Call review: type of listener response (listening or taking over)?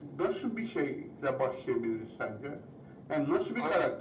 listening